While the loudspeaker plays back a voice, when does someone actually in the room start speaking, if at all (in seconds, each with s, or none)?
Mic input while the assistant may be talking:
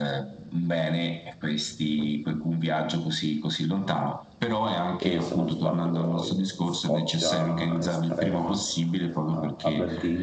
5.0 s